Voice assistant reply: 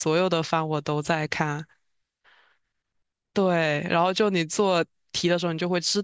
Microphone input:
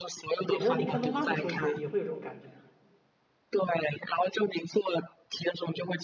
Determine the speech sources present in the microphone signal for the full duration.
both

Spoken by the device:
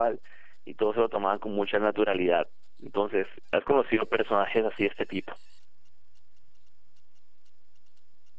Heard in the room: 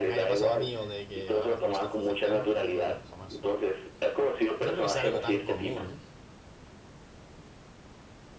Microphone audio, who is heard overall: both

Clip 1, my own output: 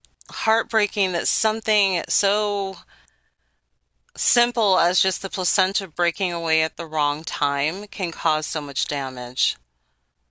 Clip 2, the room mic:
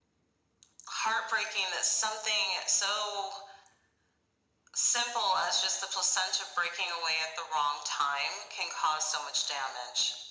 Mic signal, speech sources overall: echo only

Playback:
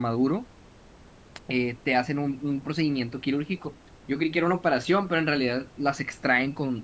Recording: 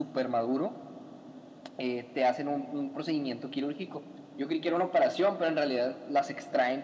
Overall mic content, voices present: echo only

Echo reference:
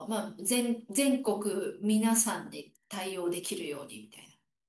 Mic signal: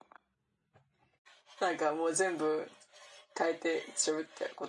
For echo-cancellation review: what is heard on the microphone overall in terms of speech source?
user only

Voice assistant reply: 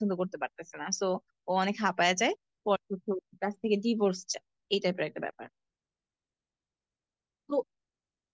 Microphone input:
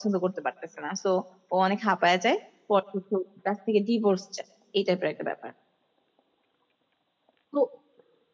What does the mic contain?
echo only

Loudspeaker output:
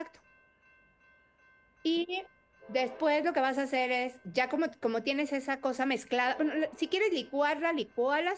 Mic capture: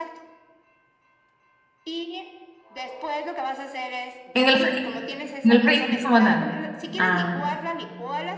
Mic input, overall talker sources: both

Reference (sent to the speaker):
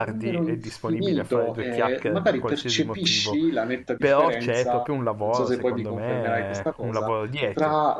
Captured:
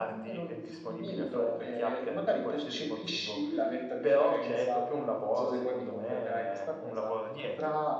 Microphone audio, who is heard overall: echo only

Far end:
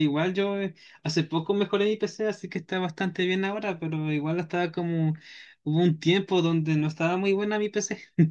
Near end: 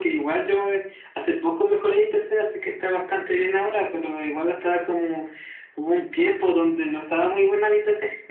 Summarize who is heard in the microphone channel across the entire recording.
echo only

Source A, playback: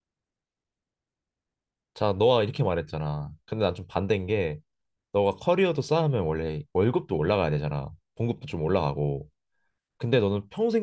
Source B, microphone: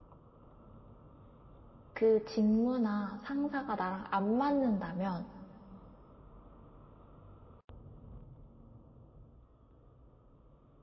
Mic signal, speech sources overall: user only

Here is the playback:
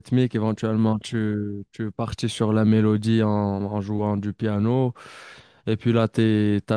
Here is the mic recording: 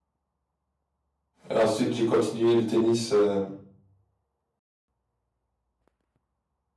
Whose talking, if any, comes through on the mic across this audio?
user only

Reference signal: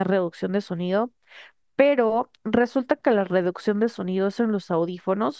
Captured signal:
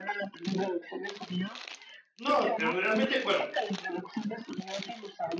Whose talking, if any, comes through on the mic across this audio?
both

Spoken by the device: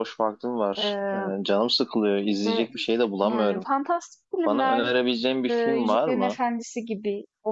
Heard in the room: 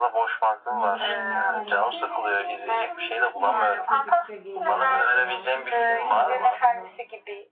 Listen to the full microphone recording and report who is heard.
both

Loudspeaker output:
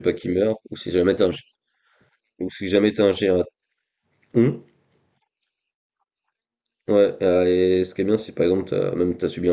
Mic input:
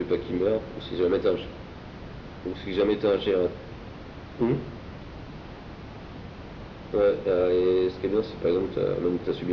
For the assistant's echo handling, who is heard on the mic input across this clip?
echo only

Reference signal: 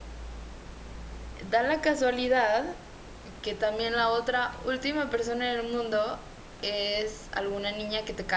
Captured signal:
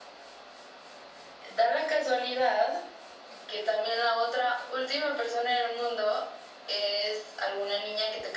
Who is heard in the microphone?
echo only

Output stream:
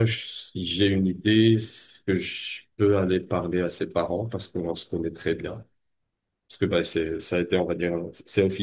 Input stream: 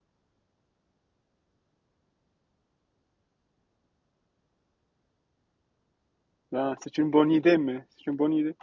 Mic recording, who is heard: user only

